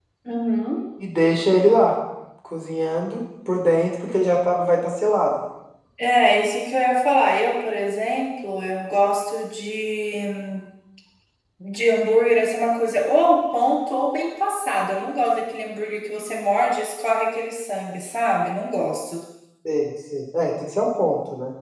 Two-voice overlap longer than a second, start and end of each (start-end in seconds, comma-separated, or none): none